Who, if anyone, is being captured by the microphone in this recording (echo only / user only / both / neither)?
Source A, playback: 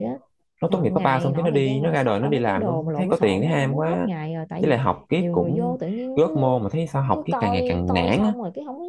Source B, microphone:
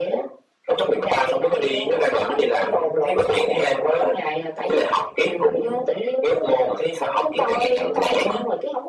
echo only